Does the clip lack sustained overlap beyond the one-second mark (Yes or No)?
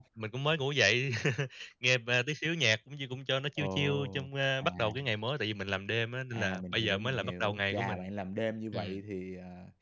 No